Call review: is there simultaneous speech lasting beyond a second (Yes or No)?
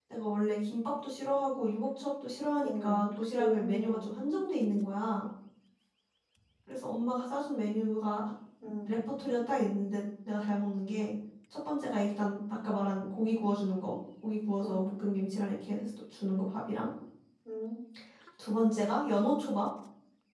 Yes